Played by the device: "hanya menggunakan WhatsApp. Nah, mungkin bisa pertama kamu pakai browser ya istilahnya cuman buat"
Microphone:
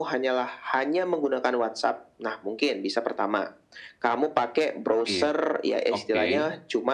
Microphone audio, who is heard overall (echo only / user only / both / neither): both